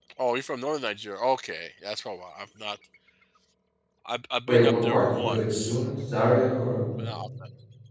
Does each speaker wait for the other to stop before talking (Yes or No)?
No